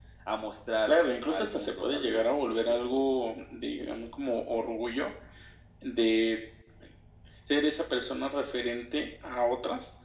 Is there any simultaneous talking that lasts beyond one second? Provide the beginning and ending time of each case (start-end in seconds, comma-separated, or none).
0.9-3.1